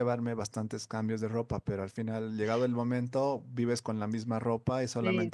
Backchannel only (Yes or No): Yes